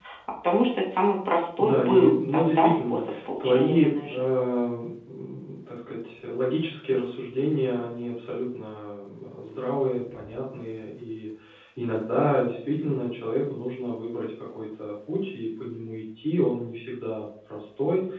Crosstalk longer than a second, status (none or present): present